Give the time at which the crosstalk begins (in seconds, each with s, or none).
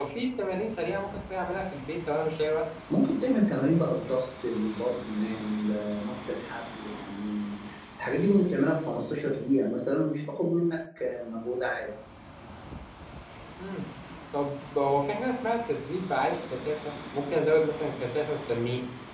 none